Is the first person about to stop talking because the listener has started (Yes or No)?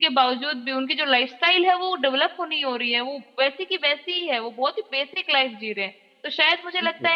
No